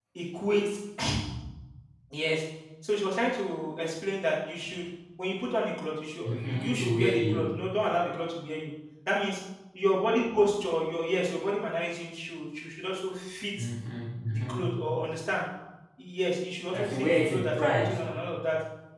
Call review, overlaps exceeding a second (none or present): present